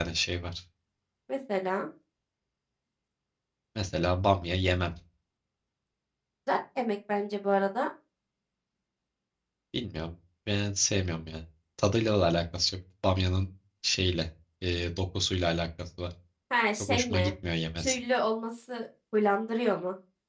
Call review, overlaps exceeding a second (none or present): none